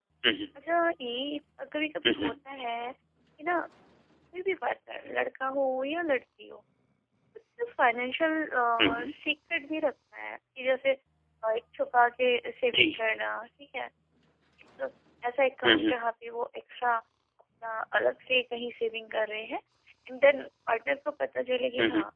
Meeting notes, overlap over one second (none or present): none